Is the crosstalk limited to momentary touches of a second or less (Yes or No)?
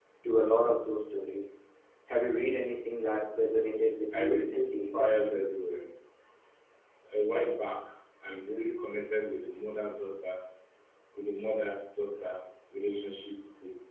No